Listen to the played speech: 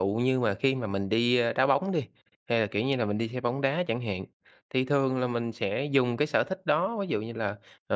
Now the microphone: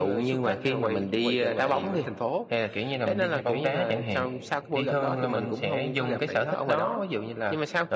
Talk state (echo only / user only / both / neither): both